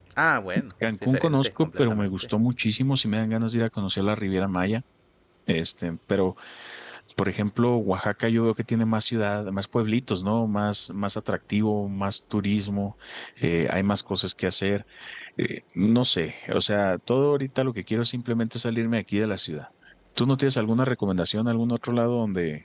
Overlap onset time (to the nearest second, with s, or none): 1 s